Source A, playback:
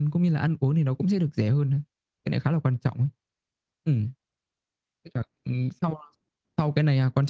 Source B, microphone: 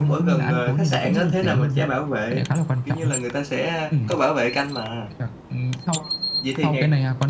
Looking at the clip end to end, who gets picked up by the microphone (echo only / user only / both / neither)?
both